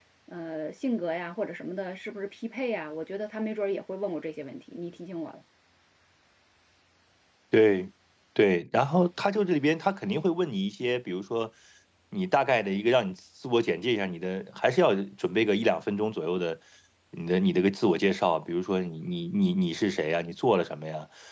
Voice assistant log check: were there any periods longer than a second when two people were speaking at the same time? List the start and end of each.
none

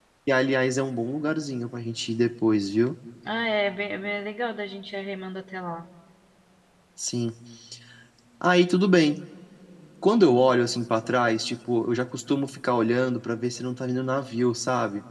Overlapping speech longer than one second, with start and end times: none

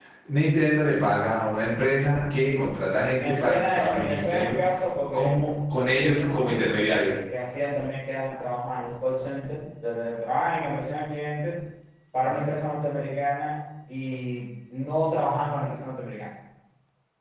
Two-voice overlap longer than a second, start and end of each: 3.1-4.6, 5.9-7.1

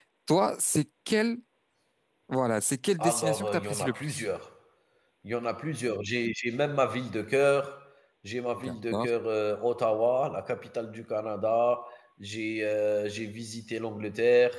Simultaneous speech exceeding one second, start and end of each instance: 3.0-4.2

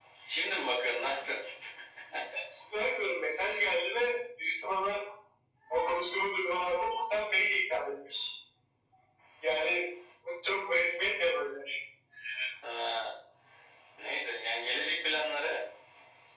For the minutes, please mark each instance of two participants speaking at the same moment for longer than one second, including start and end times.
none

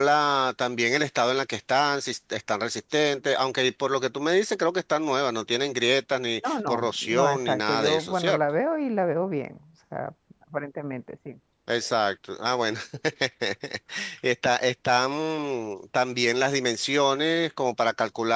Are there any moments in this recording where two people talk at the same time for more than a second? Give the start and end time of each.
6.4-8.4

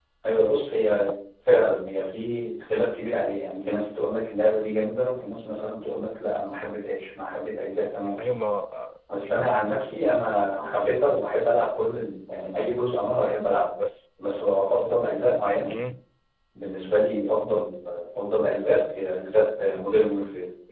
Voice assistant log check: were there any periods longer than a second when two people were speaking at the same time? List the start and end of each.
none

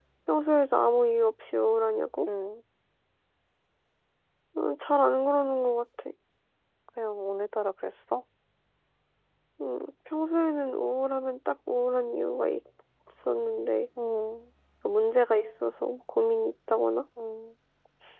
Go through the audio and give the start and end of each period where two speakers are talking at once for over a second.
none

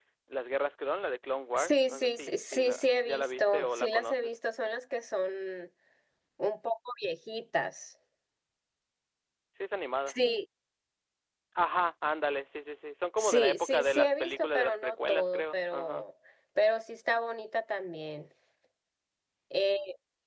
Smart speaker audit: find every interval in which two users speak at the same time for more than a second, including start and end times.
1.5-4.3, 13.2-16.0

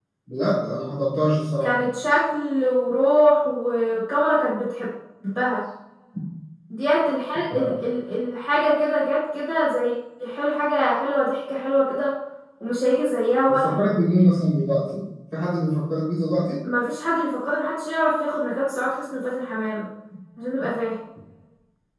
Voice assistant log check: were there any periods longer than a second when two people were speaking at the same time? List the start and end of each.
none

